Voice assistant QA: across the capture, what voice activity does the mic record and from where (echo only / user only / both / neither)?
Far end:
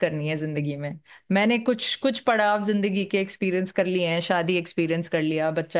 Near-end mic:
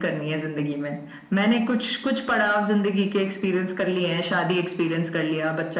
echo only